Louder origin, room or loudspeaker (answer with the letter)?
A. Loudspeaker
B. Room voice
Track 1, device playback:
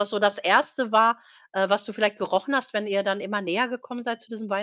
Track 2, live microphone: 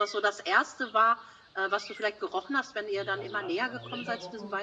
A